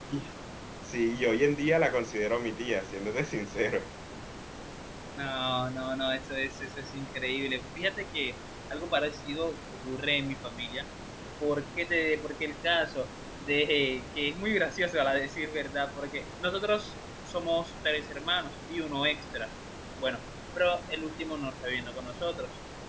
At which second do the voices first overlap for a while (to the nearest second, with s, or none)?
none